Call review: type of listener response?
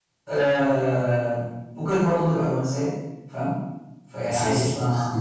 listening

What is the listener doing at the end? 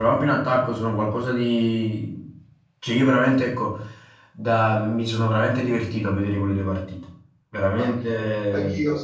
taking over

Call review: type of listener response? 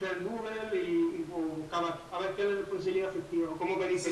taking over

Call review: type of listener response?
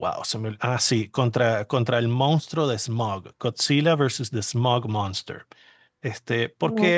listening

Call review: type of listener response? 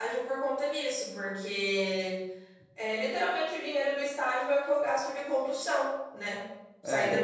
listening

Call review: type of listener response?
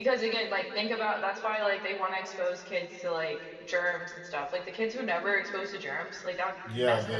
taking over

